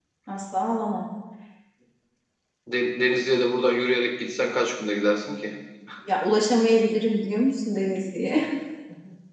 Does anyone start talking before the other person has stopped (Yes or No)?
No